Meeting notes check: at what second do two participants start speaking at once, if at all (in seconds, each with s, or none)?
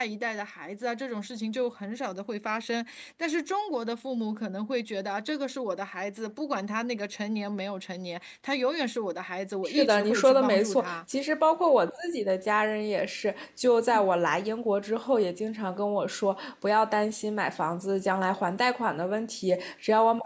9.6 s